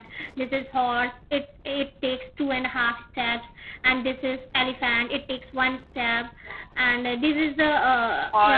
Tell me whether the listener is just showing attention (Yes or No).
Yes